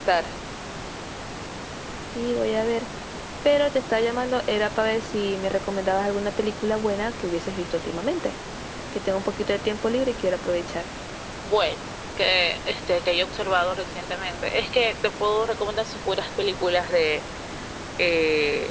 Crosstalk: none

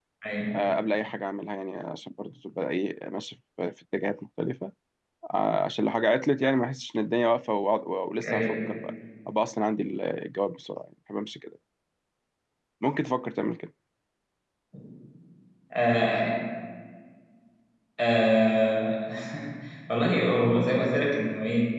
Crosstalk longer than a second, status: none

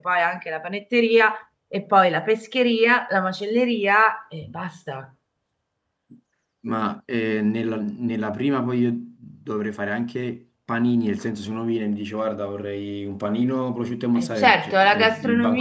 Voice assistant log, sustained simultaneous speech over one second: present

